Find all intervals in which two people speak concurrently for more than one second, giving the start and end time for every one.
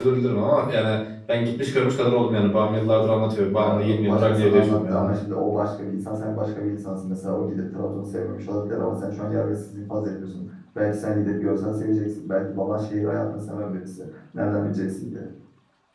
3.6-5.1

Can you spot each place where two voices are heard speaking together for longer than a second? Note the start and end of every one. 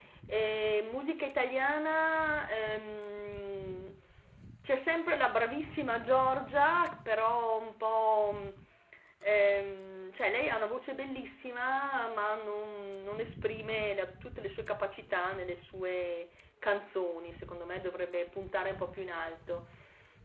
none

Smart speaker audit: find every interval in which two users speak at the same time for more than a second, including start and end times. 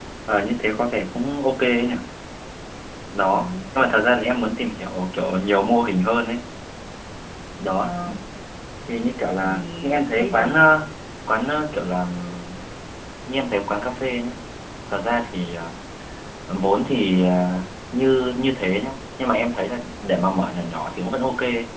9.4-10.7

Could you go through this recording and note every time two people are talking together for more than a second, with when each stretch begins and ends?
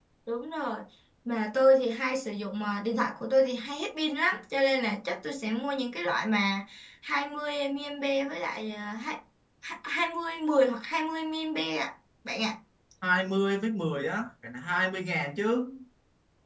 none

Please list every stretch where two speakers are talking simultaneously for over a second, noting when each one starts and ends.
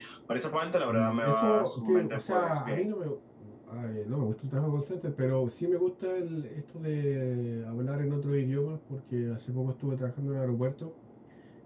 0.9-2.9

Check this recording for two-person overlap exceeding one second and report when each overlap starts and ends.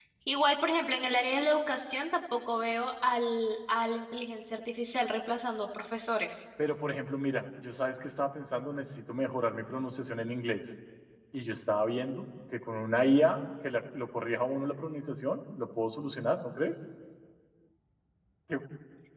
none

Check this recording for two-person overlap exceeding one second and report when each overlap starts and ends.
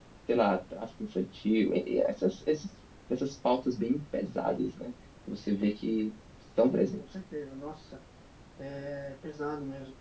none

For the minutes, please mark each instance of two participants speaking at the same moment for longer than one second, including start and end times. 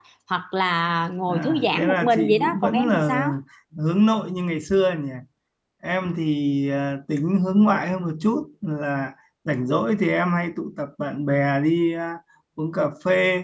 1.3-3.1

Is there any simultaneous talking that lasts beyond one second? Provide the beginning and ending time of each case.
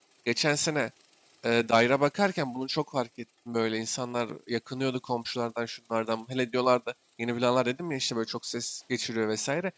none

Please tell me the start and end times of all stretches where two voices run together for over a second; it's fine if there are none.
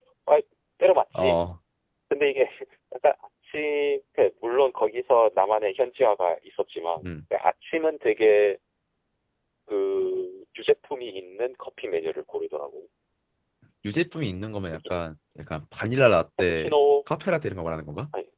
none

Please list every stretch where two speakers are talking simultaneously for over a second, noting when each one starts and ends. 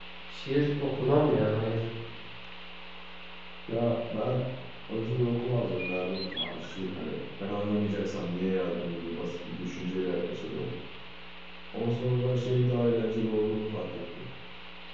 none

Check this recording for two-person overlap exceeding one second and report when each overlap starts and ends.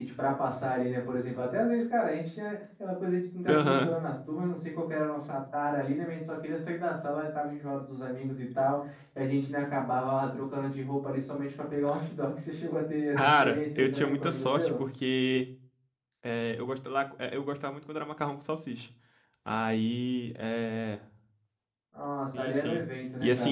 13.2-14.8

